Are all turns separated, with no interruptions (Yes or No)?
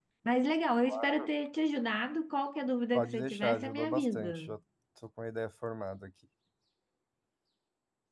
No